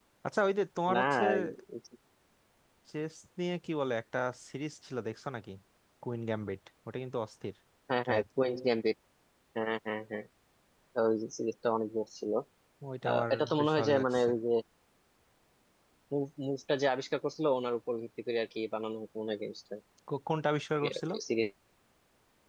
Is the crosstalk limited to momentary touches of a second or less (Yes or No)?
No